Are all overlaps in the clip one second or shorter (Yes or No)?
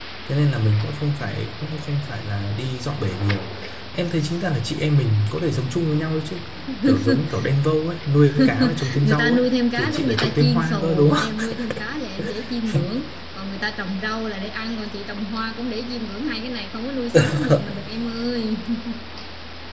No